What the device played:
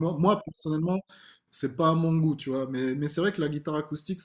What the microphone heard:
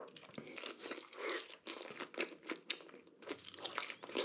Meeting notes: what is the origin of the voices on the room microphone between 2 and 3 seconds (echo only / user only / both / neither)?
neither